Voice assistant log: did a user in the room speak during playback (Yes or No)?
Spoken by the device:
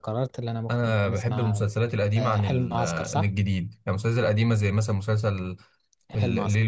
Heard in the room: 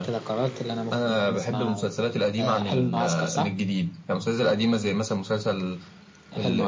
No